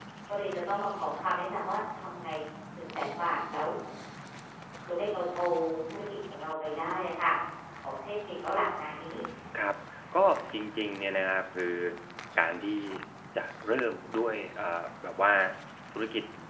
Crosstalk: none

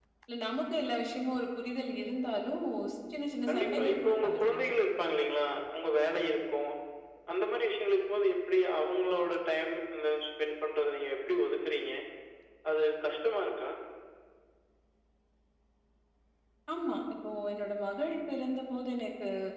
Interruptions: present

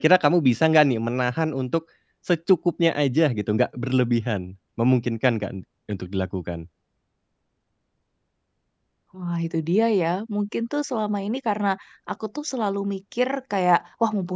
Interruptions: none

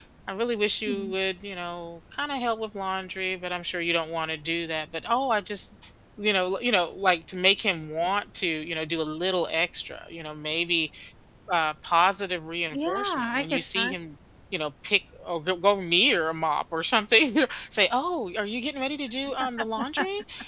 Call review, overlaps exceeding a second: present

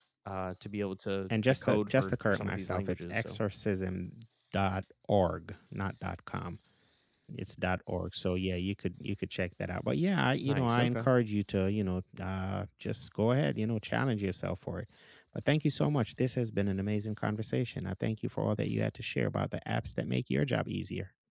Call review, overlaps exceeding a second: present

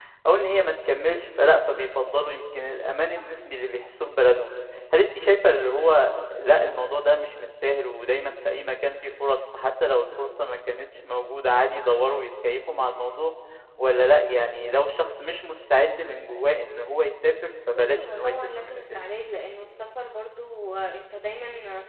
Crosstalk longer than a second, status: present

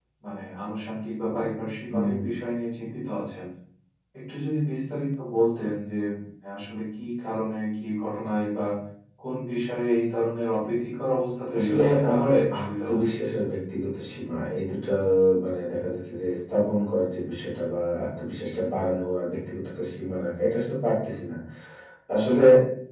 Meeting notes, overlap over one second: present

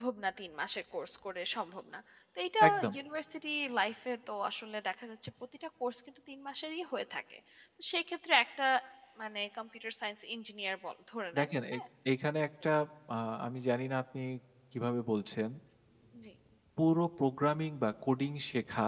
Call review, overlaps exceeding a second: none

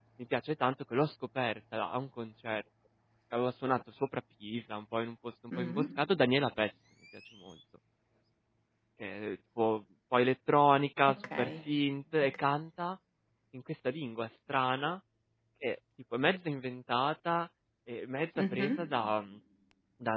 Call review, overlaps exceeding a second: none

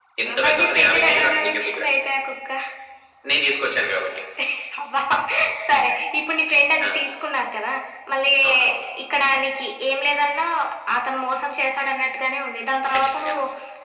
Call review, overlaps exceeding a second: present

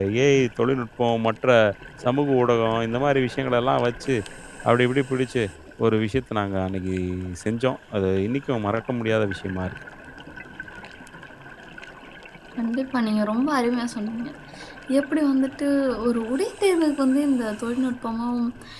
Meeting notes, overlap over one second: none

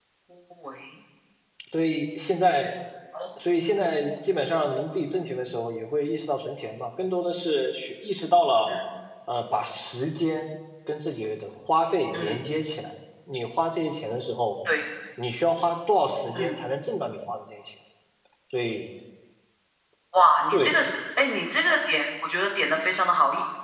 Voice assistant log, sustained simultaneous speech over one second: none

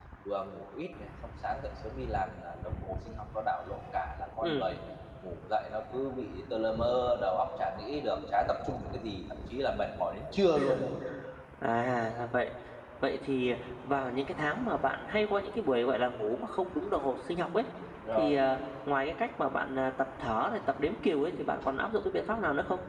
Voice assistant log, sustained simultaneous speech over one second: none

